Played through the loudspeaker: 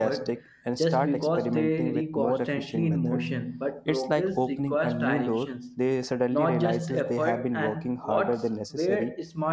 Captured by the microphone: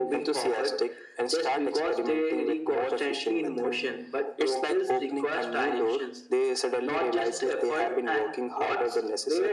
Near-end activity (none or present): none